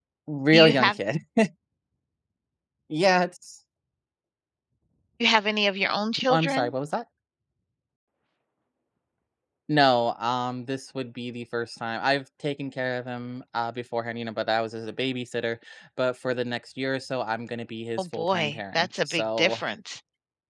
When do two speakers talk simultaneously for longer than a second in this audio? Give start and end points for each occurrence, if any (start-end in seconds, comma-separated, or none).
18.0-19.6